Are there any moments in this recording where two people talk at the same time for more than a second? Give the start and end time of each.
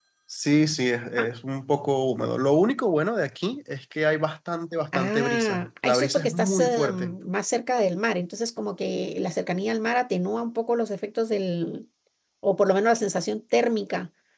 4.9-7.2

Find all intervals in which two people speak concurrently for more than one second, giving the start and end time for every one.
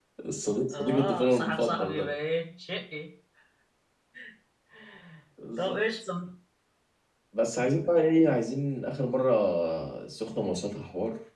0.7-2.1

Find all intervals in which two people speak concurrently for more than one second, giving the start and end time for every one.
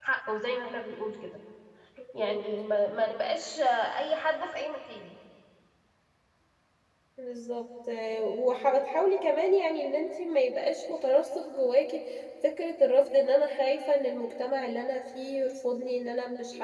none

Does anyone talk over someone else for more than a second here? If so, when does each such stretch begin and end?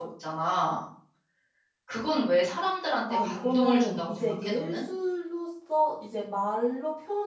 3.1-4.8

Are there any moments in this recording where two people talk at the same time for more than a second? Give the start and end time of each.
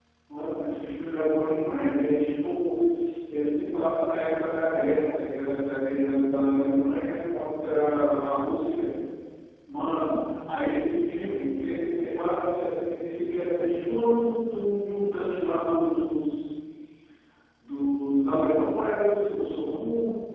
none

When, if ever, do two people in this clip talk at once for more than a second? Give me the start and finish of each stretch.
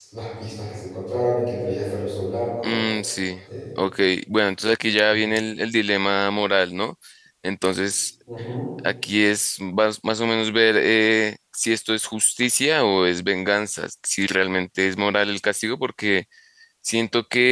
none

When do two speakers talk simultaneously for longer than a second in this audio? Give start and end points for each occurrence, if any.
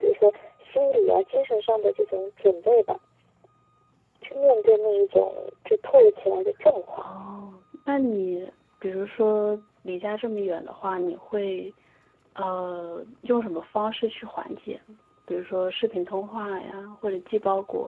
none

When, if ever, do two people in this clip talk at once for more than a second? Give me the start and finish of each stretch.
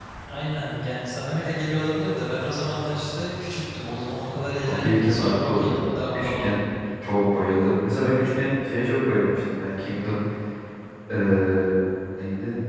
4.3-6.6

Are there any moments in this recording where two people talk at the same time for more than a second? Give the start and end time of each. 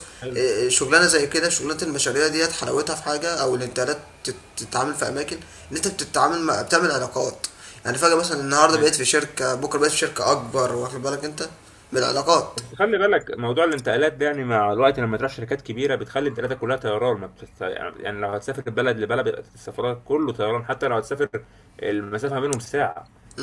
none

